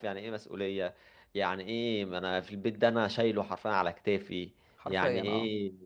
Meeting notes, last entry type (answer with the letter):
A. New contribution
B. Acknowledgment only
B